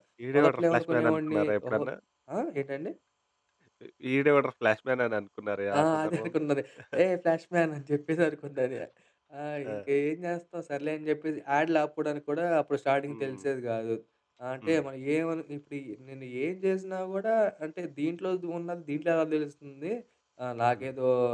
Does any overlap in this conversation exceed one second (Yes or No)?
Yes